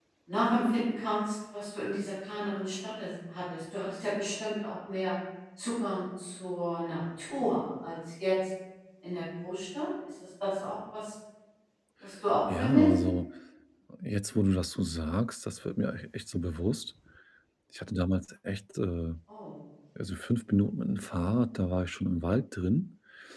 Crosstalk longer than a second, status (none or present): none